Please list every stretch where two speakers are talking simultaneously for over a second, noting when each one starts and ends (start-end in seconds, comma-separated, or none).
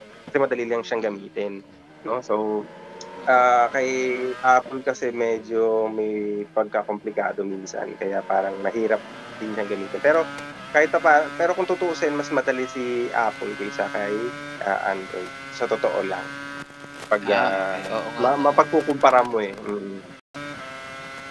17.2-18.6